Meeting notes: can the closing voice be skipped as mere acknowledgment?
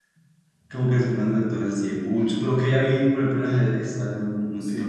Yes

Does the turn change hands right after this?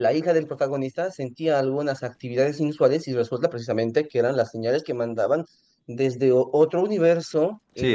No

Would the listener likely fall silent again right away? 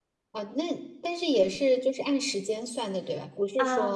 No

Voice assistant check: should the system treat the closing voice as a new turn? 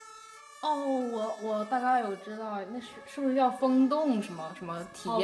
Yes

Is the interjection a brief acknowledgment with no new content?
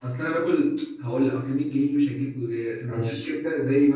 Yes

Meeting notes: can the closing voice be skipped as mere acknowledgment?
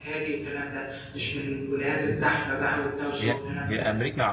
No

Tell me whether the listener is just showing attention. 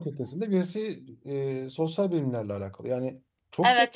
No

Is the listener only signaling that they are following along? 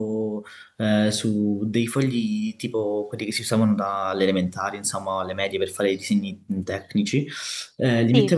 Yes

